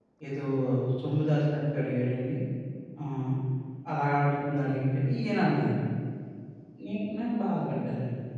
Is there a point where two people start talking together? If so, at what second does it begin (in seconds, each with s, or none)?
none